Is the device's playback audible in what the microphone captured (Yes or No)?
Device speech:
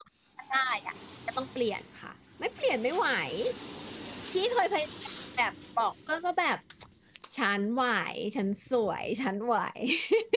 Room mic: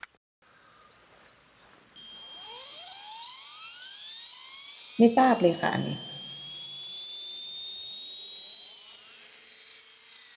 No